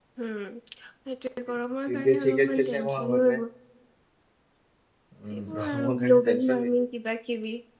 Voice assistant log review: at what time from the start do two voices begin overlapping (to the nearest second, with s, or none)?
2 s